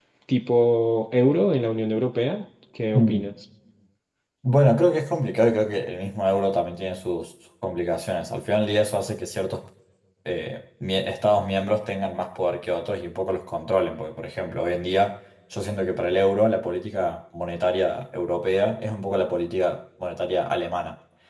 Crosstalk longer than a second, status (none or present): none